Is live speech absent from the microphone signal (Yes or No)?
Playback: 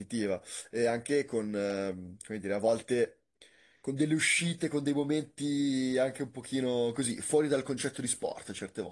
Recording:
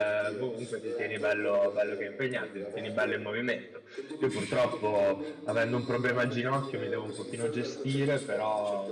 No